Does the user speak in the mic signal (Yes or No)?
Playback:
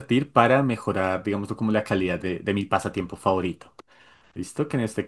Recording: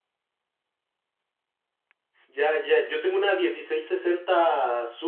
Yes